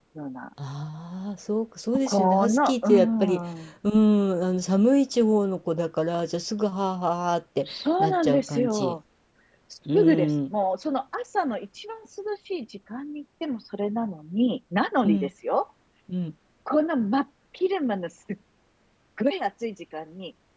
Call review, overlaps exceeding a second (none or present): present